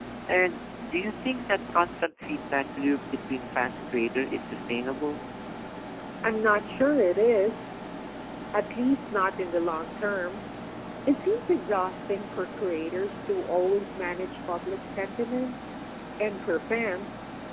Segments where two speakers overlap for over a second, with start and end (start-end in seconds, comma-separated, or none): none